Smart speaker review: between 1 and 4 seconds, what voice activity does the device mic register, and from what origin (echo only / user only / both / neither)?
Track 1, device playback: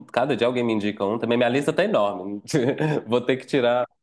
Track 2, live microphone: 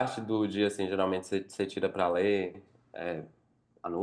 user only